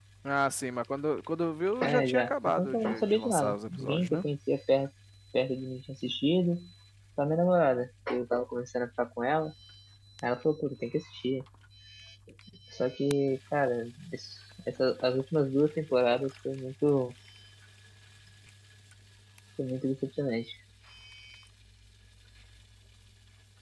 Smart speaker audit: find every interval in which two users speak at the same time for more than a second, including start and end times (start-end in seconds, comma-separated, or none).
1.8-4.2